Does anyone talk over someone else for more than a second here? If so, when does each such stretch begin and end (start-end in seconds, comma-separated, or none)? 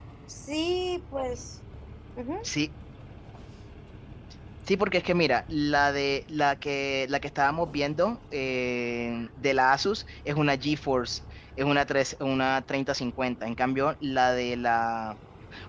none